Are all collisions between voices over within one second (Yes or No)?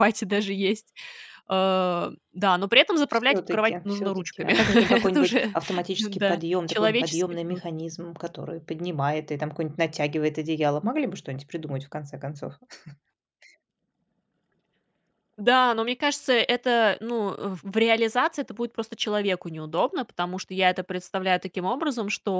No